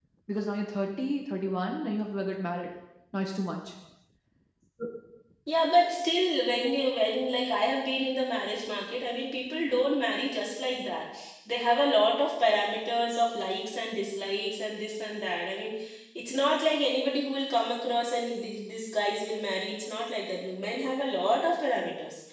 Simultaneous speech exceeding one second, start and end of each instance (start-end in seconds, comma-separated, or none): none